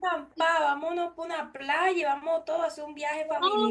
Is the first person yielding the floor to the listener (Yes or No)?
Yes